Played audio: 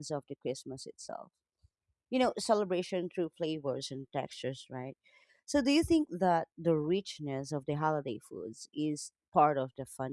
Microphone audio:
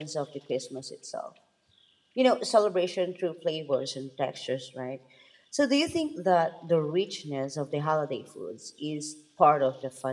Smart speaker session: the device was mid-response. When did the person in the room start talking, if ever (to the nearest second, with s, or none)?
none